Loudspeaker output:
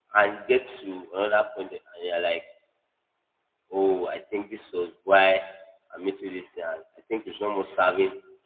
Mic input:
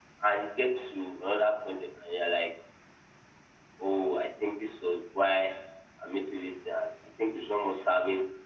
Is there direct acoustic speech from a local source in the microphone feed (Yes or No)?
No